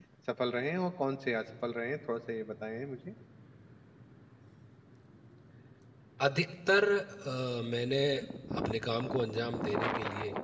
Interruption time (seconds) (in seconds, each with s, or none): none